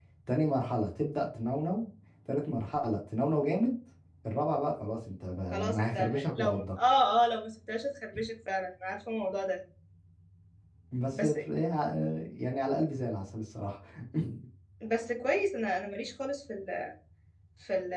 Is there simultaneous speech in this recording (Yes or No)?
Yes